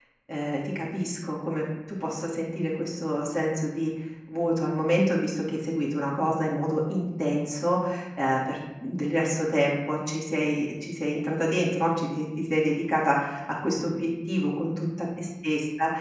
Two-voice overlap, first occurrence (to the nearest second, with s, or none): none